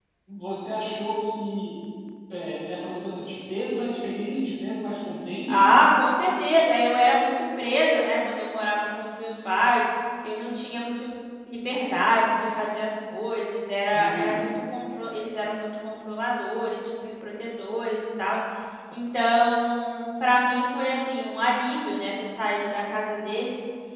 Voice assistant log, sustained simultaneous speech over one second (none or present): none